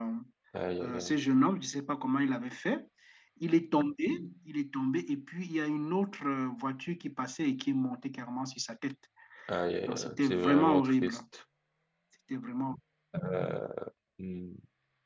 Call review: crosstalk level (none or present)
present